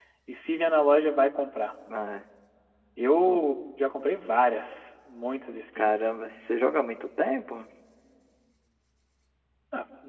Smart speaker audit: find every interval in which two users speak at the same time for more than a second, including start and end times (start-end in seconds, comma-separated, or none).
none